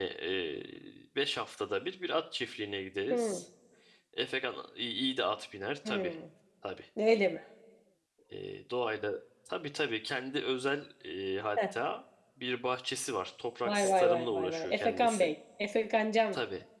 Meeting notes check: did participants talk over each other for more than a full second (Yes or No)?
Yes